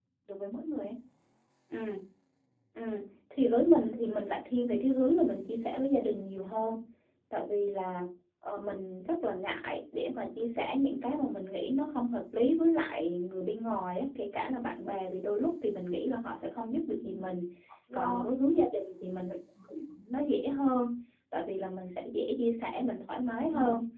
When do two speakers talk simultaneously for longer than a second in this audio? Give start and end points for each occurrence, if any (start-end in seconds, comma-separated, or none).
none